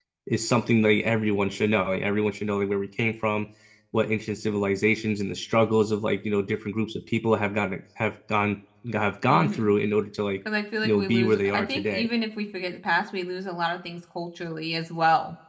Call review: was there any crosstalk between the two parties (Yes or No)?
Yes